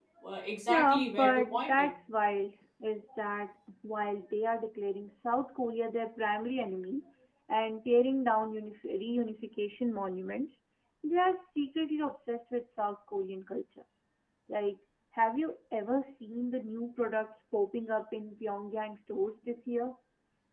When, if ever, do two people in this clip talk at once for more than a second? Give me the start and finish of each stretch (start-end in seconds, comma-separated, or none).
0.7-1.9